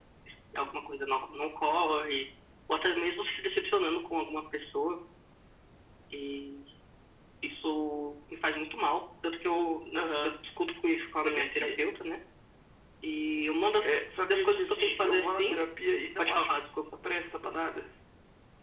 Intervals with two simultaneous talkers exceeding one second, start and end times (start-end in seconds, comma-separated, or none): 14.3-15.6